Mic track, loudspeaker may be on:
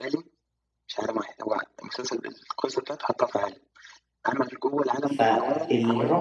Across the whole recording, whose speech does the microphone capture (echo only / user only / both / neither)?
both